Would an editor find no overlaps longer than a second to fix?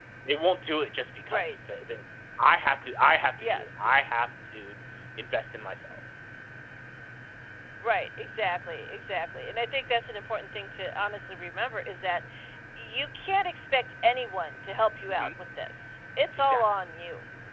Yes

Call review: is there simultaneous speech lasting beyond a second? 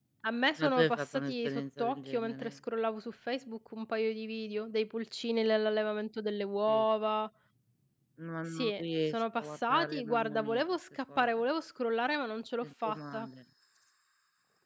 Yes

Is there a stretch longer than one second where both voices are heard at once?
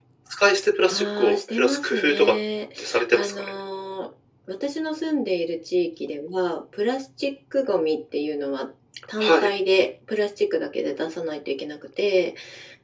Yes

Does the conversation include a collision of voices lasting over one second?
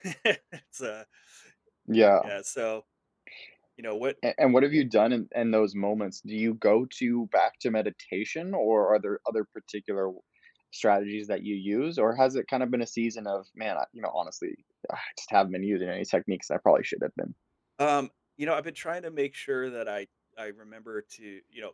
No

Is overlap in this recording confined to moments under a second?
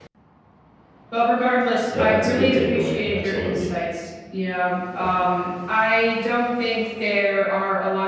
No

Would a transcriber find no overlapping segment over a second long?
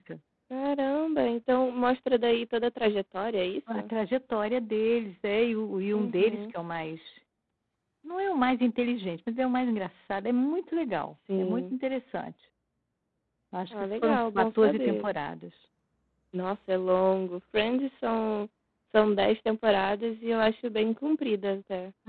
No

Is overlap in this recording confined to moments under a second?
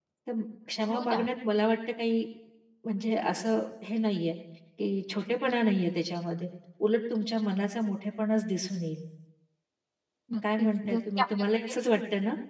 No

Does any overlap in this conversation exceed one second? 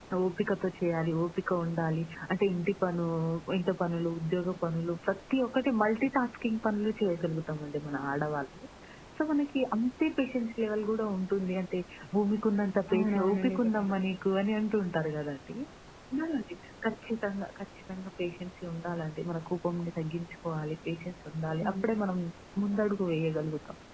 Yes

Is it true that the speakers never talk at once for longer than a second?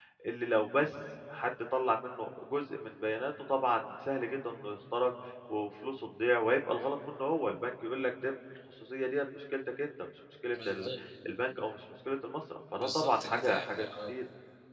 No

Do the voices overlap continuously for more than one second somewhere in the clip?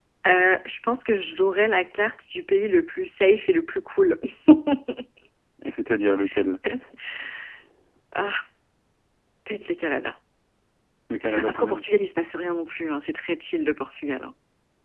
No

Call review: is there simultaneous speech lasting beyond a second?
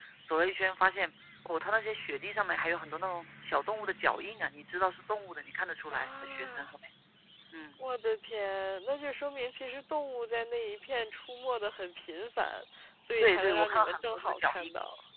Yes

